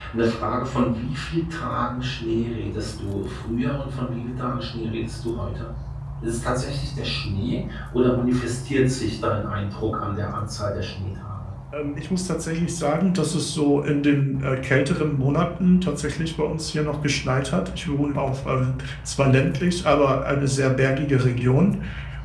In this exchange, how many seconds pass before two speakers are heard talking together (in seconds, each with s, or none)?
none